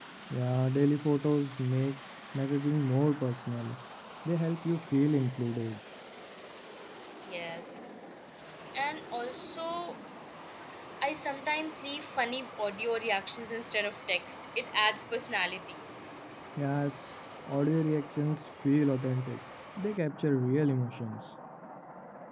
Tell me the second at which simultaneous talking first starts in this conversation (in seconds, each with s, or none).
none